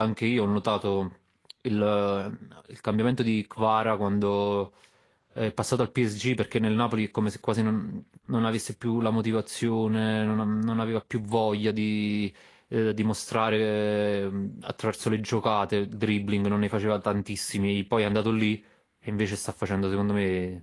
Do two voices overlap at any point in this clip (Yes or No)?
No